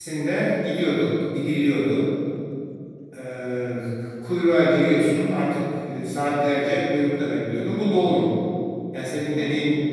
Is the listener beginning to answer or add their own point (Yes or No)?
No